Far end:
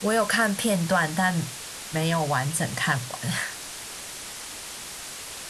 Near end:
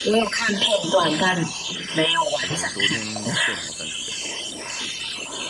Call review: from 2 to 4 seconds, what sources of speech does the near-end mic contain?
both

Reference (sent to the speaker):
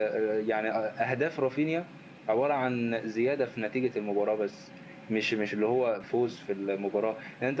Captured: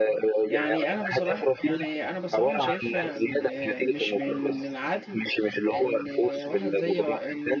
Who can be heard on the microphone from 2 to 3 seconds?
both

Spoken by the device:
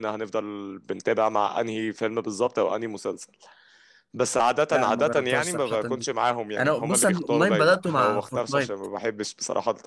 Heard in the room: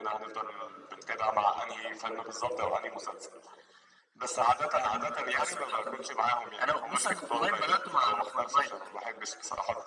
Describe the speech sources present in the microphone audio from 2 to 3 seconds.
echo only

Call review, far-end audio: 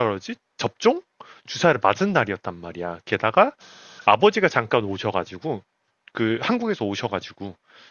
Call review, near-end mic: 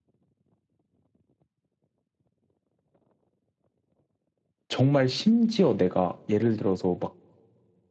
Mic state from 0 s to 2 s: neither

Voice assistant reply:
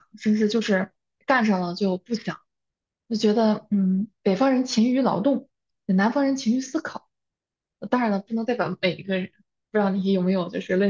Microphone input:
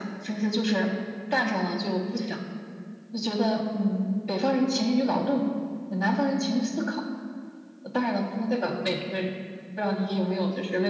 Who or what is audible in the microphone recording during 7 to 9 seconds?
echo only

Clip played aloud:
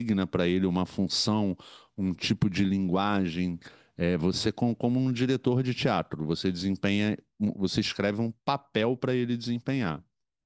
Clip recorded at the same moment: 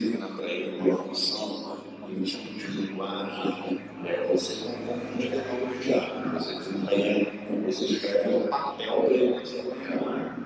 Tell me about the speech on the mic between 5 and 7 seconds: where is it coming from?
echo only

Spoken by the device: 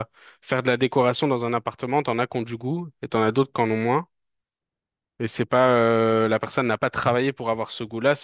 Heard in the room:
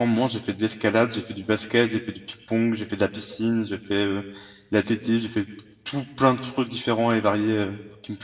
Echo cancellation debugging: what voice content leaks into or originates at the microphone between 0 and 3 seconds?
user only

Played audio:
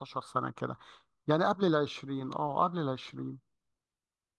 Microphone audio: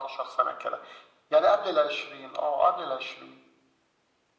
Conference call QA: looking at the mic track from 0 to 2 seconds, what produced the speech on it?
echo only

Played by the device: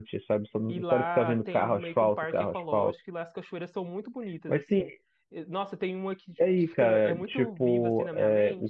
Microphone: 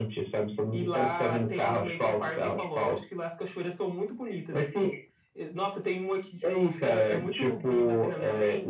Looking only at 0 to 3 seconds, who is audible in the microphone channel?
echo only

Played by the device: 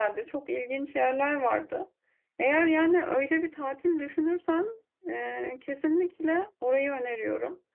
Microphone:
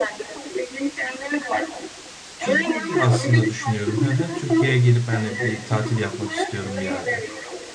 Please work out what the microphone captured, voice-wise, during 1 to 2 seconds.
echo only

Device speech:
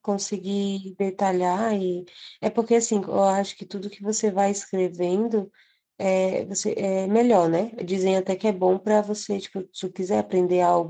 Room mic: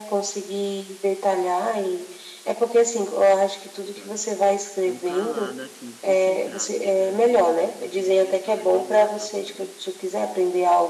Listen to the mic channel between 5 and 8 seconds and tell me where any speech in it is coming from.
both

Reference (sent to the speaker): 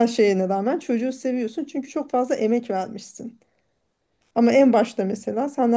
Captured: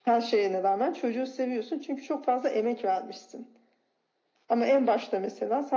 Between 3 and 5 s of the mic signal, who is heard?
echo only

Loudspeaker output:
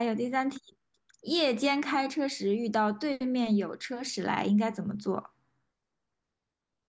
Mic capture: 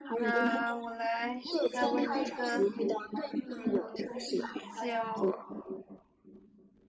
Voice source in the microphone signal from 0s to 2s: both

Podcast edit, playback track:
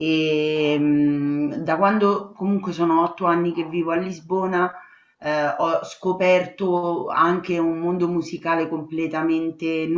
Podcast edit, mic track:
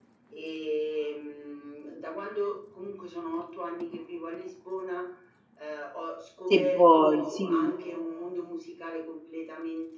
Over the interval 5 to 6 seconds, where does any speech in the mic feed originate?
echo only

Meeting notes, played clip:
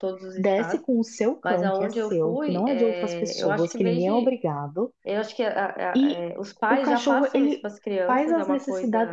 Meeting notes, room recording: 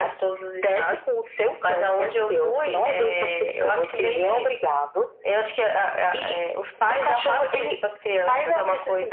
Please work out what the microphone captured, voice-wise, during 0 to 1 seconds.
echo only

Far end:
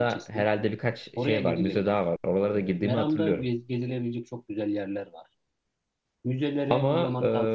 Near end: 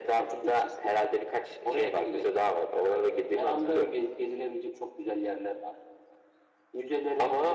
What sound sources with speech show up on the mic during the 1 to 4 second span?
echo only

